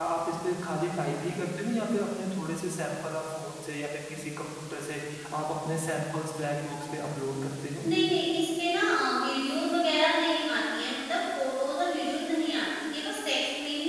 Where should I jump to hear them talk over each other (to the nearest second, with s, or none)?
none